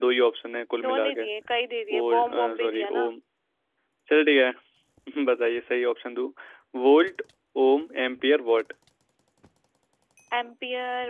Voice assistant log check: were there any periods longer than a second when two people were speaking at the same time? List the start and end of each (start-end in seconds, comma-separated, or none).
1.9-3.1